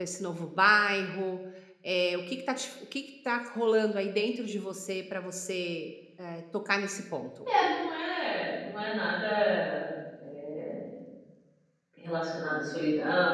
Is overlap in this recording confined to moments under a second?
Yes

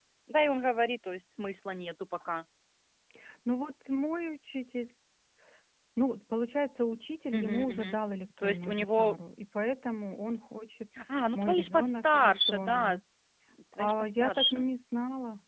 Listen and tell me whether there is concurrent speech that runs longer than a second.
Yes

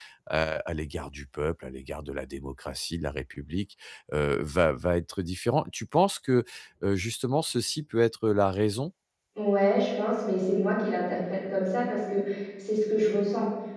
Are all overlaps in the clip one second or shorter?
Yes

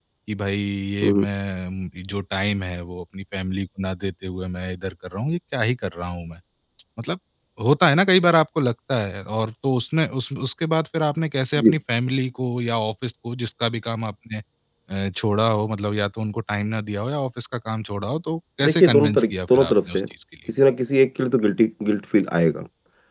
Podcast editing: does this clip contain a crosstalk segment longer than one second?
Yes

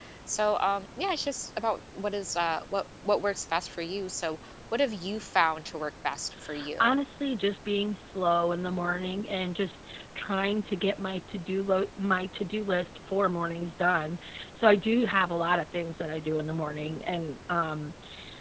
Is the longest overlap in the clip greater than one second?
No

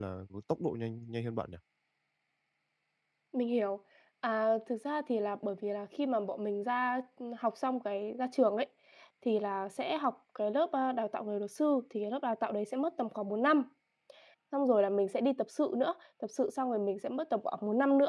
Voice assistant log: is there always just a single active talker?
Yes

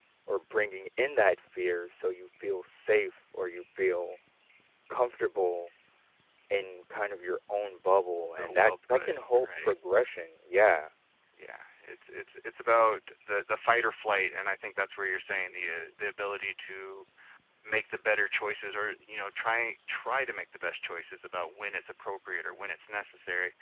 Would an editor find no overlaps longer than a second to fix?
No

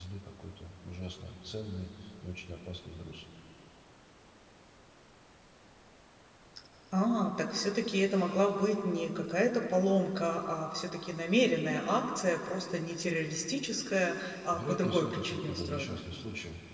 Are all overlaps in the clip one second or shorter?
No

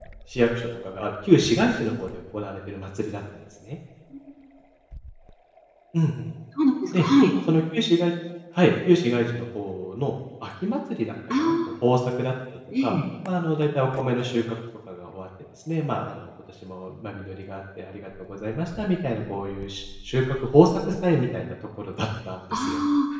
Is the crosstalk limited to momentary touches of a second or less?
Yes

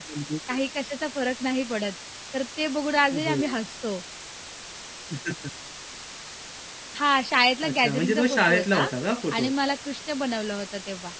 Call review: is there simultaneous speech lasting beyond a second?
Yes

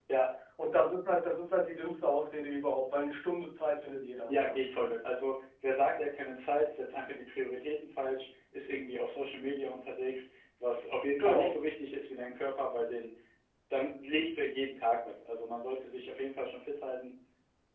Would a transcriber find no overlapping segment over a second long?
Yes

